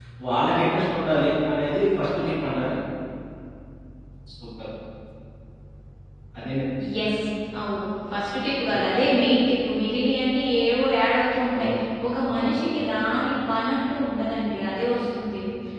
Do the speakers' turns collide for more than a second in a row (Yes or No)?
No